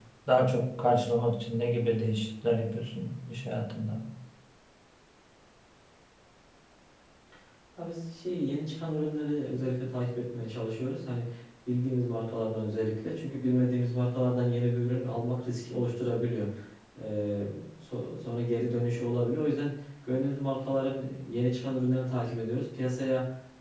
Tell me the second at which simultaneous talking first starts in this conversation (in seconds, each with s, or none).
none